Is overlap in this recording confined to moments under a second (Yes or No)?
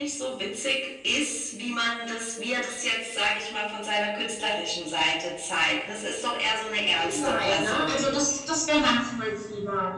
No